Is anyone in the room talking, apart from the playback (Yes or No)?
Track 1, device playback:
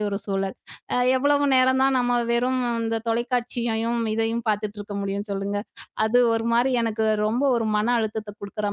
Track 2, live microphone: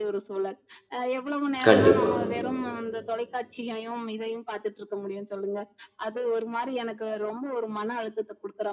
Yes